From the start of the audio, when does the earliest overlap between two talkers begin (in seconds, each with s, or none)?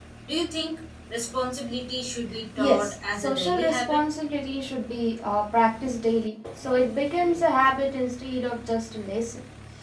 2.6 s